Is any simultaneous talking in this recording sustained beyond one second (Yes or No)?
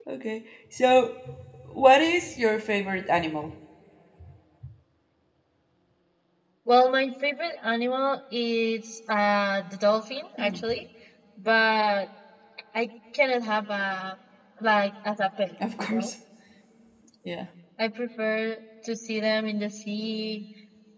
No